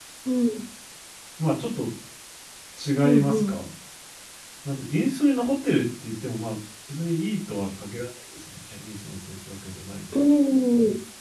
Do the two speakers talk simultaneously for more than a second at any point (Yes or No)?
No